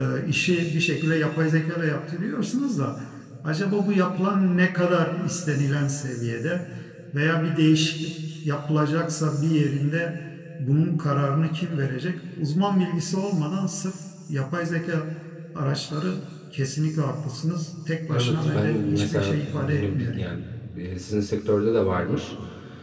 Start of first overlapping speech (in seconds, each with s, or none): 18.1 s